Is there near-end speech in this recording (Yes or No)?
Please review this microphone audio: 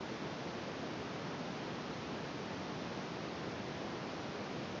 No